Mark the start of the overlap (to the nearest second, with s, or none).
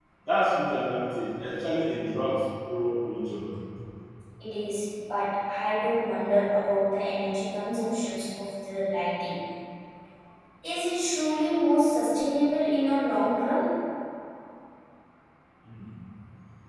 none